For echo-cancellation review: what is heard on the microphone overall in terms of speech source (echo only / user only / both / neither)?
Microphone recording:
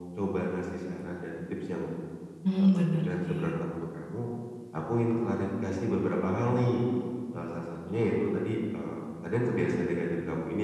both